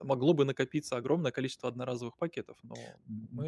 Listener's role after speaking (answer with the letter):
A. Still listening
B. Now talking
B